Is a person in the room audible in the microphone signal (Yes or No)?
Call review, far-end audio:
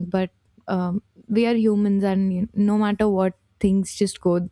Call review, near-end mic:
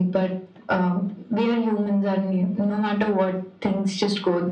No